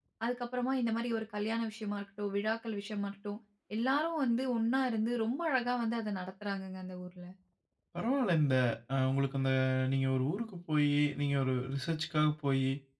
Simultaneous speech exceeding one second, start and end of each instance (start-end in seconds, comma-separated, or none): none